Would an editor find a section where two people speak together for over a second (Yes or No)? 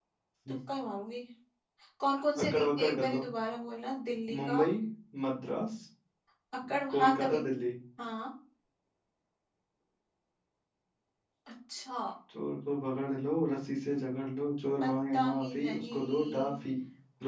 Yes